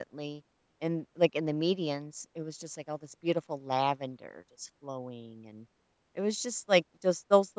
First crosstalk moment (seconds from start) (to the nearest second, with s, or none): none